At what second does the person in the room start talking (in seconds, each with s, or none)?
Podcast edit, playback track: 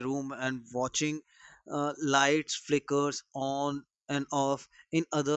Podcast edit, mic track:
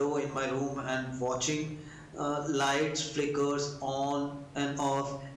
none